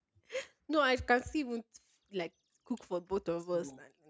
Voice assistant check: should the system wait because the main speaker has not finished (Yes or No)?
Yes